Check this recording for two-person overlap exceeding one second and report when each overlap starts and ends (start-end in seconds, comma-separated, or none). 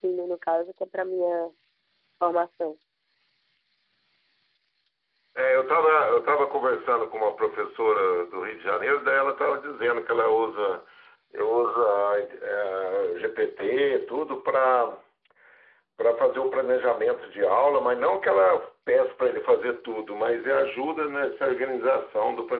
none